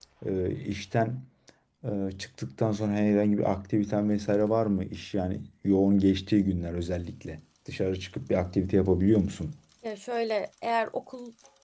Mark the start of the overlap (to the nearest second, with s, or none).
none